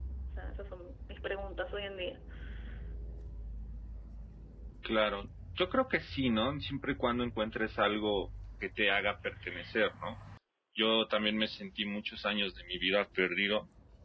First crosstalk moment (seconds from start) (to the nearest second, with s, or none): none